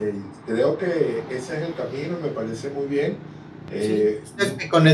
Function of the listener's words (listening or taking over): taking over